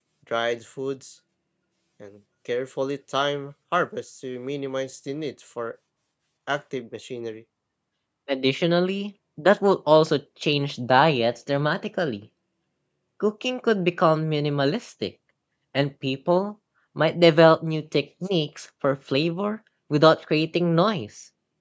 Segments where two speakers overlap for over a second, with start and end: none

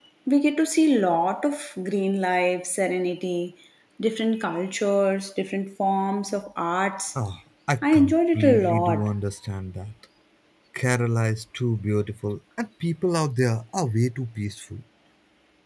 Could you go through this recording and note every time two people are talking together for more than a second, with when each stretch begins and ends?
7.8-9.1

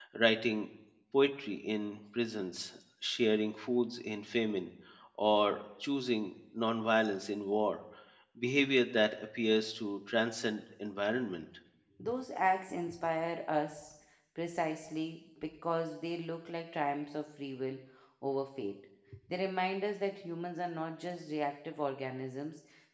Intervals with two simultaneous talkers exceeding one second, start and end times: none

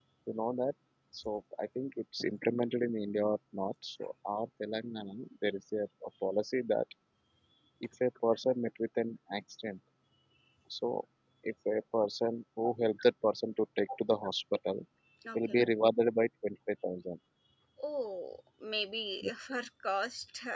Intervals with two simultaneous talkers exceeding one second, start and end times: none

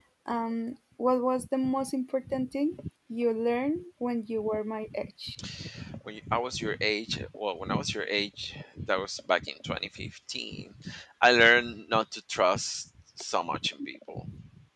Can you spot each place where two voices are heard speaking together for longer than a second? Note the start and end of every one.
none

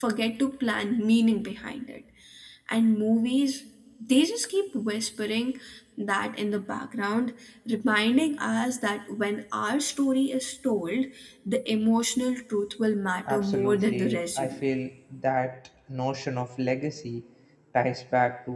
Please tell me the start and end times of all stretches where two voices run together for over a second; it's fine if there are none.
13.3-14.7

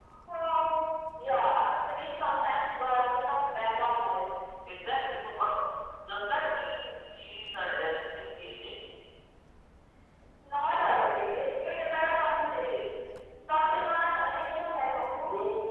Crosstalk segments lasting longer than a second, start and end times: none

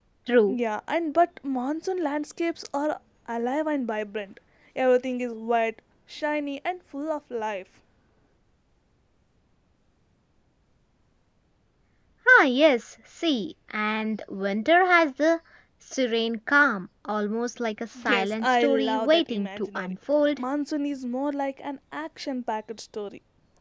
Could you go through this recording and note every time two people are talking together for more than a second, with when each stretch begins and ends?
18.0-19.9

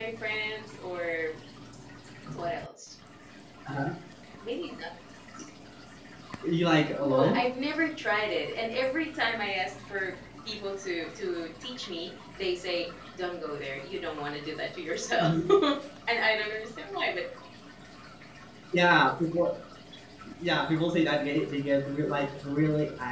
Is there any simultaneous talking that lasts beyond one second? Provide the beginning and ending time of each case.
none

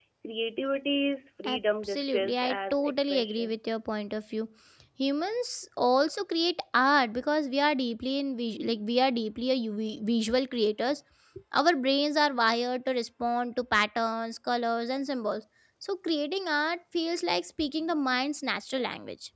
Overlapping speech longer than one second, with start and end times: 1.4-3.6

